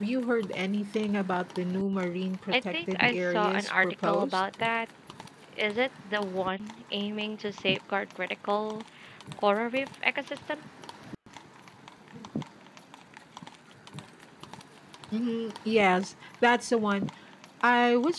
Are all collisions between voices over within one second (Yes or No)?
No